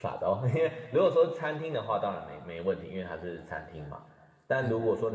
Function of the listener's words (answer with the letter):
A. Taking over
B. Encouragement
B